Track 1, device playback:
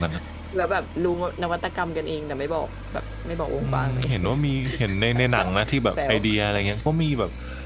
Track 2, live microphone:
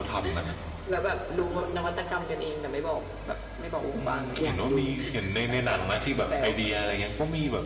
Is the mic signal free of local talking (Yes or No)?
No